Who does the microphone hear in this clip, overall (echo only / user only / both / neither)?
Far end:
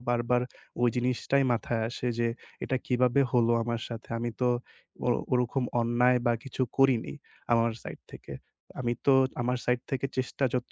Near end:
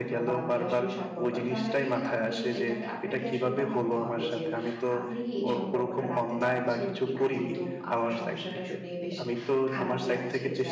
both